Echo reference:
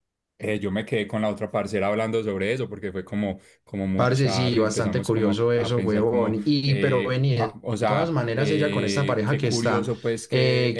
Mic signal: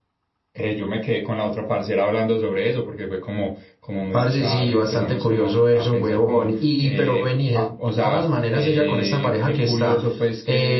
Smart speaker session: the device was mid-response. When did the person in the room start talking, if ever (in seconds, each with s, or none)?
none